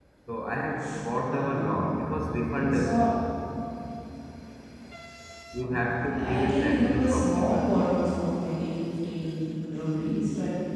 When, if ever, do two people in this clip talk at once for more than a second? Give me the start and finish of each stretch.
1.3-3.1, 5.6-7.7

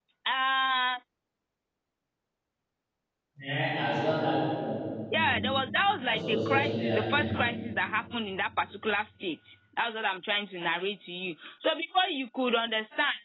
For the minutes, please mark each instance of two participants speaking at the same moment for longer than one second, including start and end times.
6.0-7.5

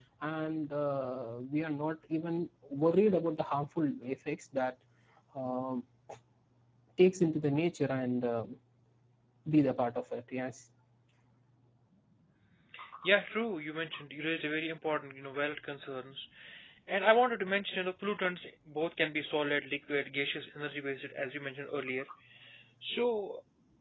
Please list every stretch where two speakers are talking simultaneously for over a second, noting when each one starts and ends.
none

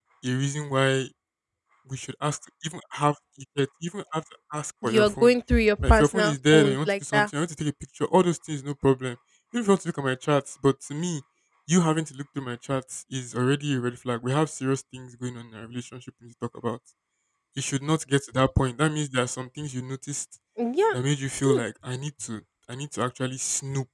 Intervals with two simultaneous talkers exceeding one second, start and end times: 5.8-7.3

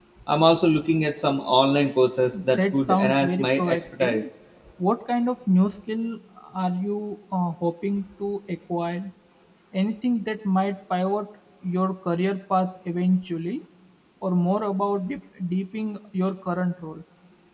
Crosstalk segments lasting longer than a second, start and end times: 2.6-4.2

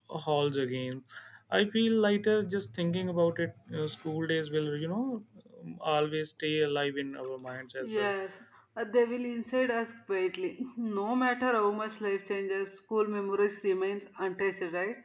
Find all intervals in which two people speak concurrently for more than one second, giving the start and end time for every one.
none

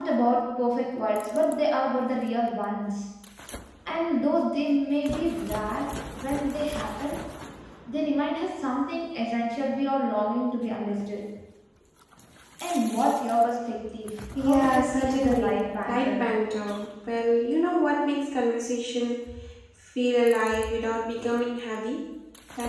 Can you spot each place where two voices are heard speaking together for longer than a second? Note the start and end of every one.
14.3-16.4

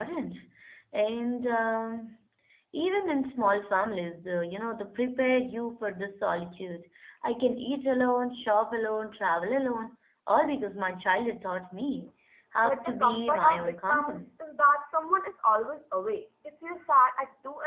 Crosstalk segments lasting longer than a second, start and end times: 12.6-14.2

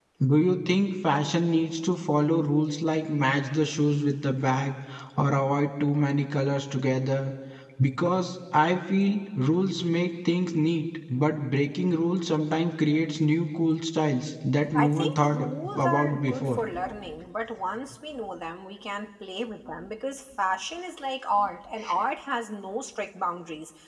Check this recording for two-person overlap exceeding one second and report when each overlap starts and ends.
14.7-16.6

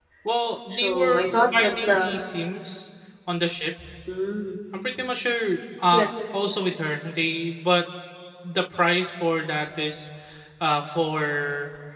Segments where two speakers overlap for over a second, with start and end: 0.7-2.2

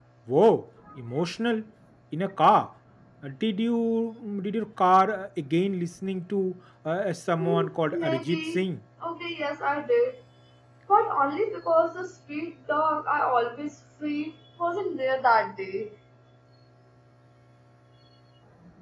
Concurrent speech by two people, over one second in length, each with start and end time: 7.4-8.6

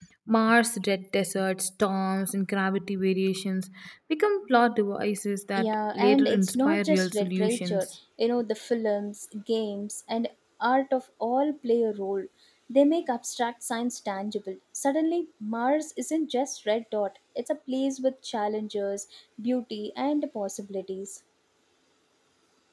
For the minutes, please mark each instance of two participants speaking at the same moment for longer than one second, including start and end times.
5.6-7.9

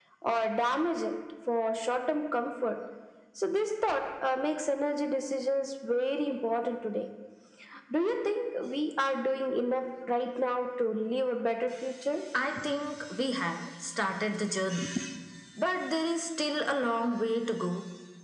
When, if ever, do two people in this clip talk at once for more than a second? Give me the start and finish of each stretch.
none

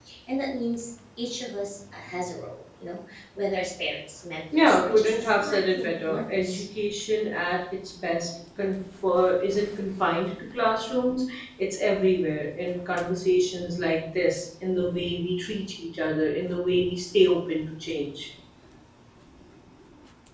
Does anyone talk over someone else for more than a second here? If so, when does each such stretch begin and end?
4.5-6.6

